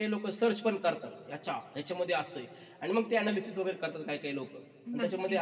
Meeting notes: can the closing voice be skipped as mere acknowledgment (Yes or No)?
Yes